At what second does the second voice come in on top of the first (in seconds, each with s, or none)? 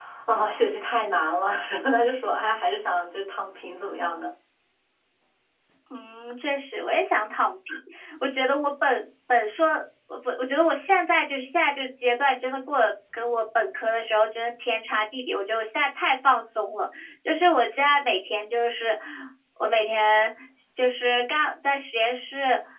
none